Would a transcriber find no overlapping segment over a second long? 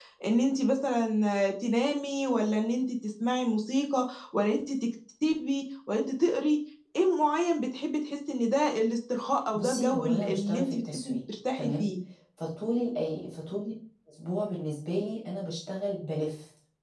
No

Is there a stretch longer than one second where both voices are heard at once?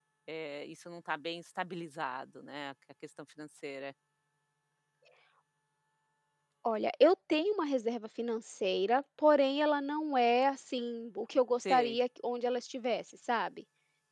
No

